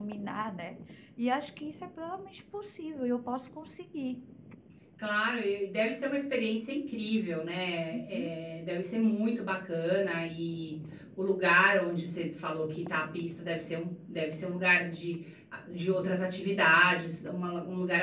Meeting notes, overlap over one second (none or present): none